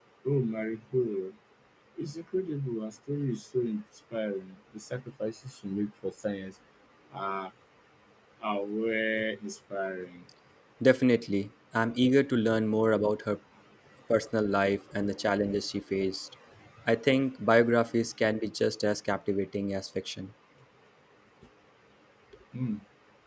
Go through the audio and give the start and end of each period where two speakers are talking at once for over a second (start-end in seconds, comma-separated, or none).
none